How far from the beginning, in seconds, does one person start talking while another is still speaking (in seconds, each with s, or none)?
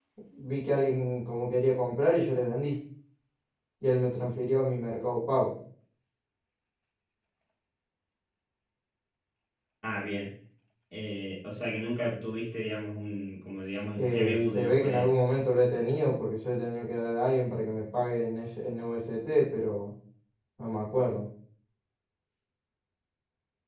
13.7 s